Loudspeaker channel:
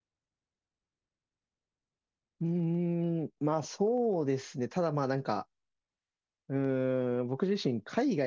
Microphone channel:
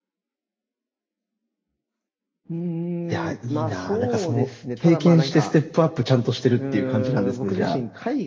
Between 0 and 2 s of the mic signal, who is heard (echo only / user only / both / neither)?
neither